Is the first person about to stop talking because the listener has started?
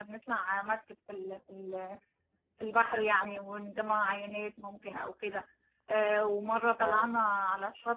No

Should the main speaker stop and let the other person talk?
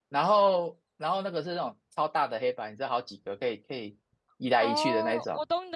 Yes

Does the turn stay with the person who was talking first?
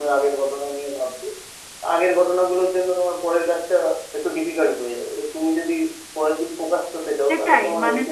No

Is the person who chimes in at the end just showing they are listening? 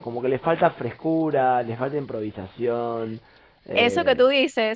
No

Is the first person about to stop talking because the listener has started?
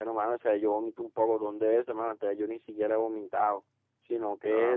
No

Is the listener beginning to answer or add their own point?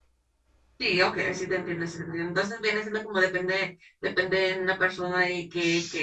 No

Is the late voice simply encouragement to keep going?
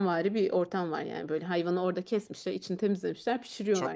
Yes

